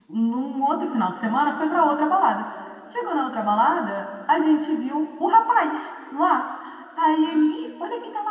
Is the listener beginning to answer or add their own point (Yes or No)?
No